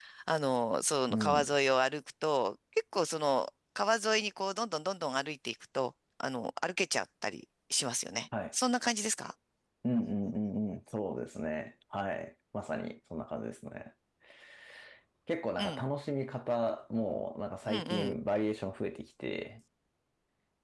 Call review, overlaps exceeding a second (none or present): none